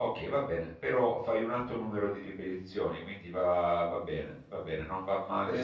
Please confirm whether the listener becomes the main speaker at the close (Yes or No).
No